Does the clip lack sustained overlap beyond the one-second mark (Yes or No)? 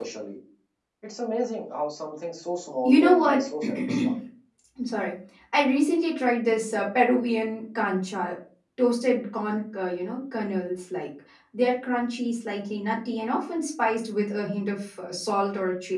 No